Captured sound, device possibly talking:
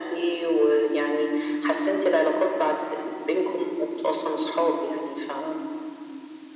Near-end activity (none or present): none